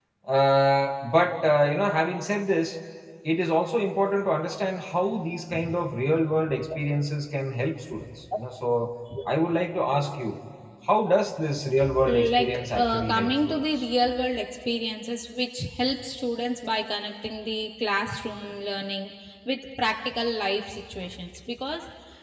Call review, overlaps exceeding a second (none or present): present